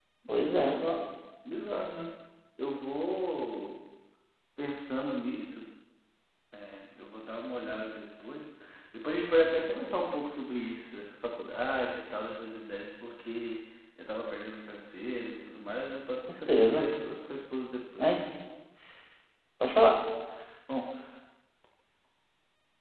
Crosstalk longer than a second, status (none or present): none